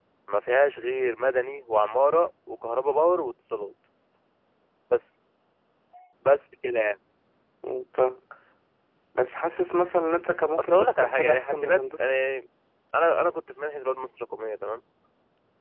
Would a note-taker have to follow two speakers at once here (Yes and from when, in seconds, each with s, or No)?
Yes, from 10.6 s